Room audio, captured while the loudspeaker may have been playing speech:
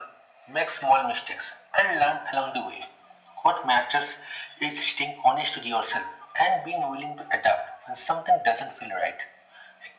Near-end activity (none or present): none